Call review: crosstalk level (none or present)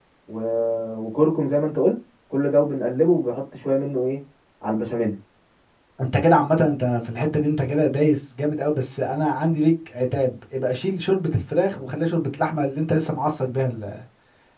none